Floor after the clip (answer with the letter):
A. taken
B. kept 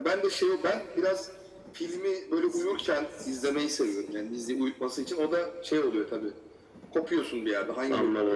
A